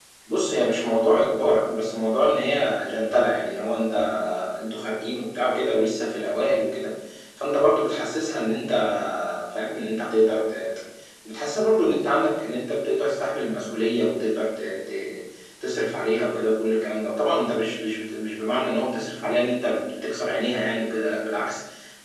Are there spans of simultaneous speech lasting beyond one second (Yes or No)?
No